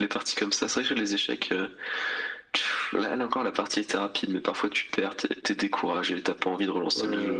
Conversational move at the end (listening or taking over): taking over